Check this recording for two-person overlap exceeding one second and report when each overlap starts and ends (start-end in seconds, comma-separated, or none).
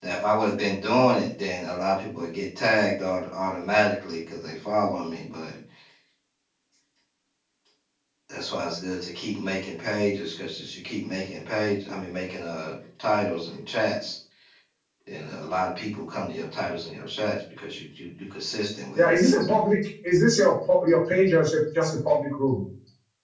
none